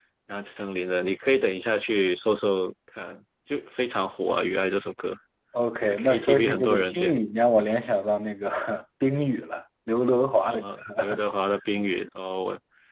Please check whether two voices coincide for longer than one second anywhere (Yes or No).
Yes